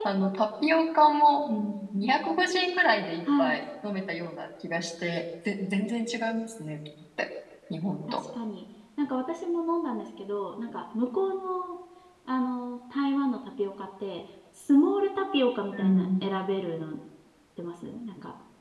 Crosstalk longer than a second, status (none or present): none